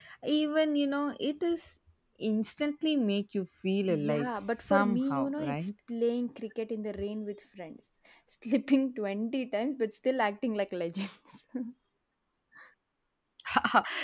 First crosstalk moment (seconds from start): 3.9 s

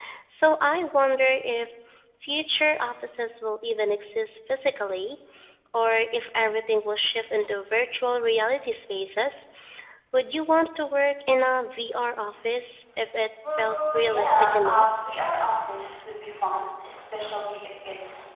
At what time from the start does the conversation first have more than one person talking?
13.4 s

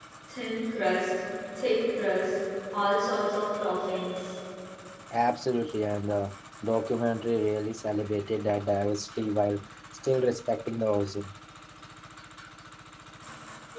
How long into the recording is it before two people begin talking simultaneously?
none

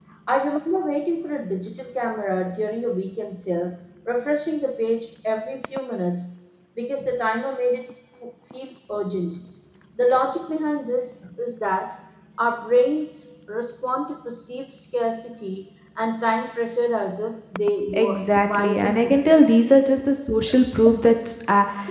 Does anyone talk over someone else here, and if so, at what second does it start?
17.8 s

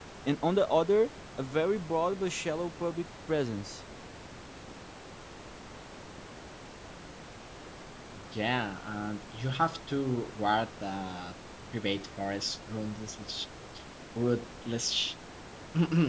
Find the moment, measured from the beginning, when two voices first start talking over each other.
none

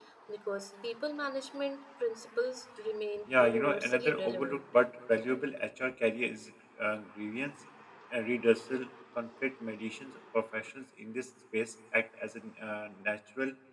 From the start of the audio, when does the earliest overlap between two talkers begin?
3.3 s

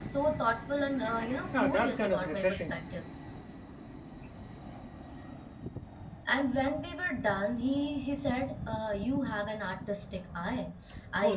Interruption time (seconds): 1.5 s

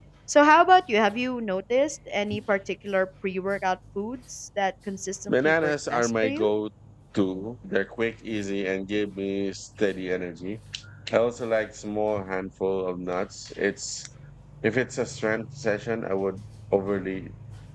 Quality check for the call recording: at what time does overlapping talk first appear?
5.3 s

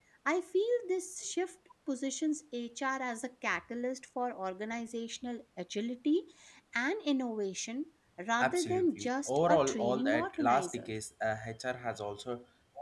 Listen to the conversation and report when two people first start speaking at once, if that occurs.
8.4 s

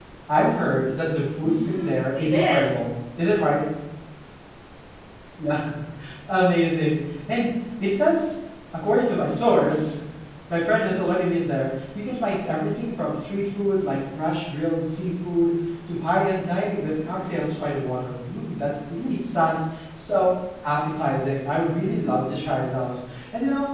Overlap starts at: 1.4 s

